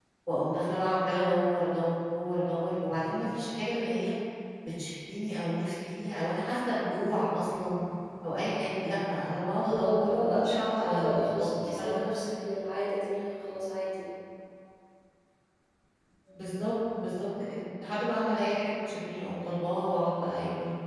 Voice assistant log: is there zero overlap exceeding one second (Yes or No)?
No